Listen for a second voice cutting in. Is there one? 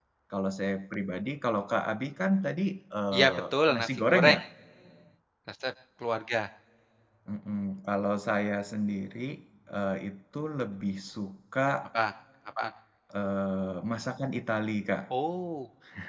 Yes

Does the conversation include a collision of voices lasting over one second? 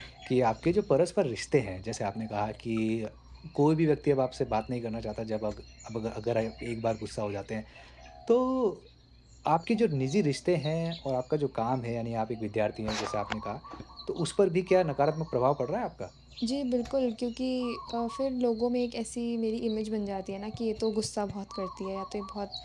No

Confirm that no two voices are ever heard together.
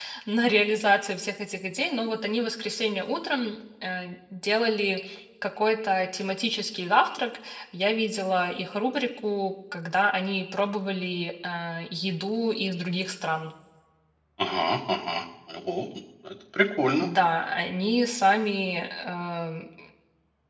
Yes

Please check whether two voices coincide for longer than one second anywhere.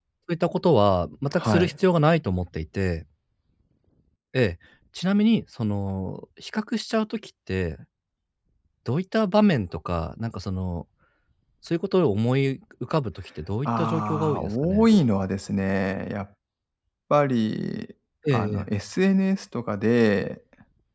Yes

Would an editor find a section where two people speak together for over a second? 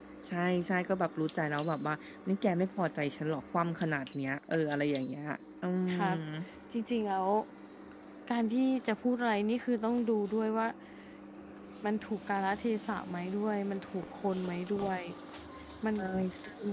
No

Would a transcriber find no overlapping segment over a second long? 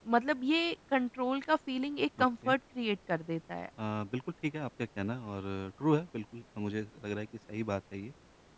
Yes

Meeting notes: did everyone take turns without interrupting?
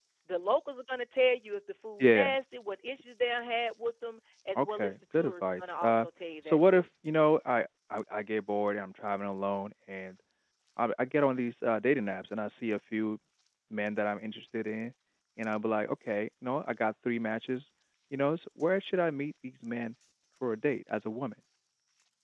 No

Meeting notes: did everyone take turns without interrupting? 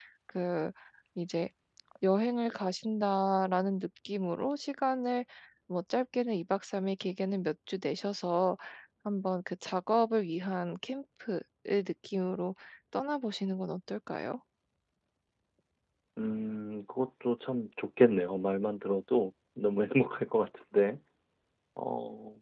Yes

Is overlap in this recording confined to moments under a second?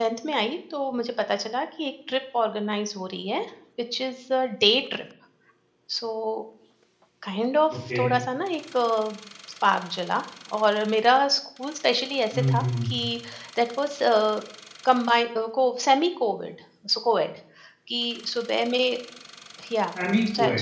Yes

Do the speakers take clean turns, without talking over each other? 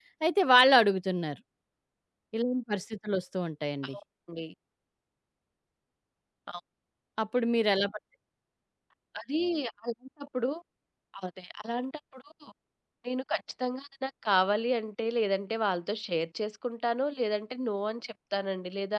Yes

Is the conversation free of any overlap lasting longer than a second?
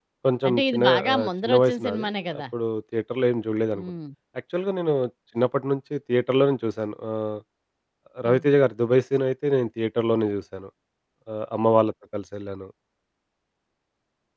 No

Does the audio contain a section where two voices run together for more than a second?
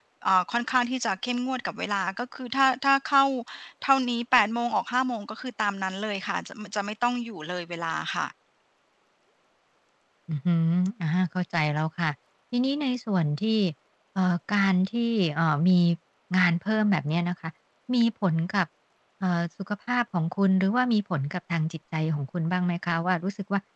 No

